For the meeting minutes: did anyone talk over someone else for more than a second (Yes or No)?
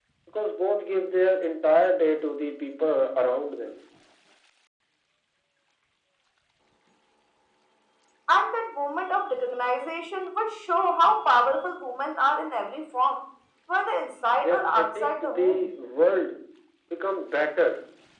Yes